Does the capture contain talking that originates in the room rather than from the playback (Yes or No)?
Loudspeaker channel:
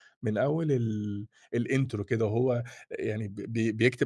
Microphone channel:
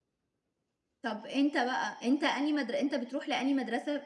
Yes